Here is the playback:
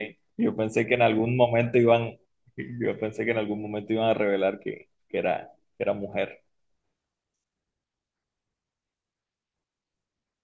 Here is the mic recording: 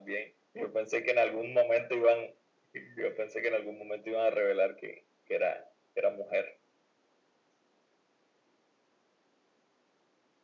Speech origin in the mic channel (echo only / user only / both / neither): echo only